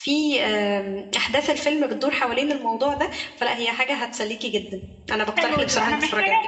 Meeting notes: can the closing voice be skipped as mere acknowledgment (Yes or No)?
No